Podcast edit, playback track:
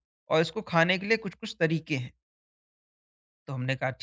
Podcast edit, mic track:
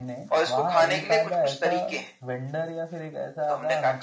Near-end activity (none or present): present